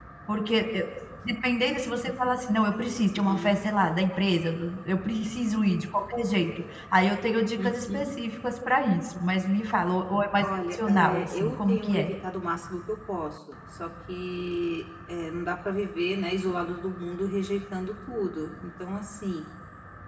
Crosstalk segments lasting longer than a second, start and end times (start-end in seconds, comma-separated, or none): 10.7-12.1